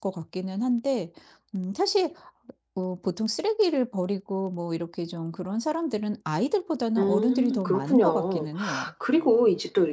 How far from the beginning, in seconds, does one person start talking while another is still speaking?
7 s

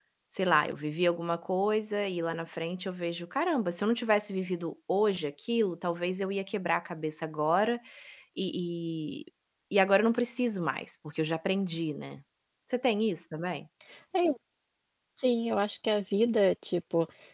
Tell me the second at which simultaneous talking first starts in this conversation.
none

